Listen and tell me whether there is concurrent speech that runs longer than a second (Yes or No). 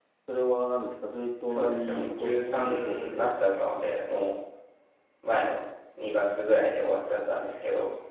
Yes